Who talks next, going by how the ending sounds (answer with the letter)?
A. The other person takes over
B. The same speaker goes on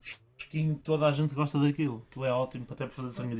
A